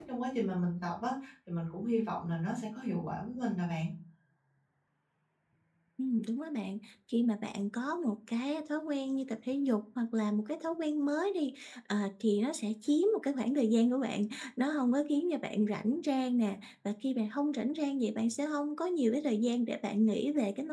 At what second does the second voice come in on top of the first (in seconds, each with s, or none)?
none